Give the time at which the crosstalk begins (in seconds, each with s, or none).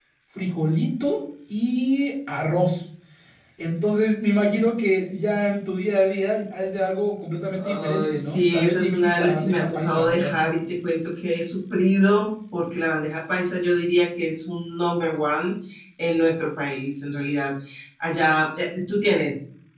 7.6 s